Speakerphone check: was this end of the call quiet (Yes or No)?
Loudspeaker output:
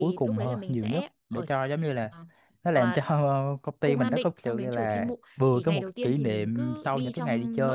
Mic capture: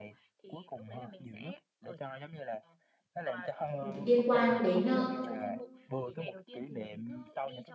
No